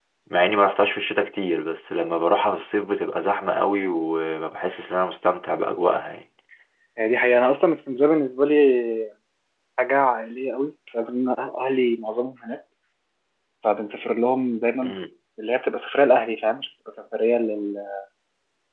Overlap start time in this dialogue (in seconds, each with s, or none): none